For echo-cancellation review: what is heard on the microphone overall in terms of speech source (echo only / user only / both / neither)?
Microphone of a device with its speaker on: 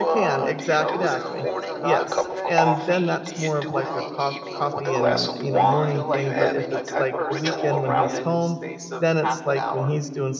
both